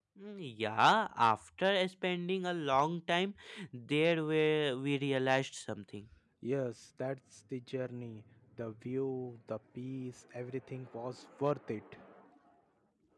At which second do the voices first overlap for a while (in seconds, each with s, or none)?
none